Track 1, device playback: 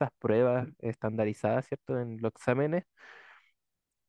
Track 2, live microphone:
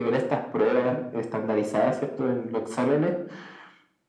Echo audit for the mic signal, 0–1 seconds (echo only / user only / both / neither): echo only